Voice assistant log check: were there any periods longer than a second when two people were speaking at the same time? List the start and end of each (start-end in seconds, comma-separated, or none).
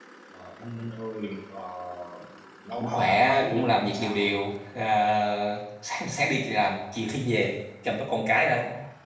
2.8-4.4